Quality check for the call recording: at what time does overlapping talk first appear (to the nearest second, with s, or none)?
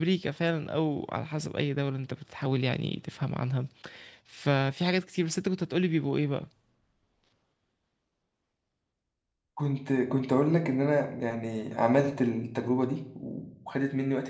none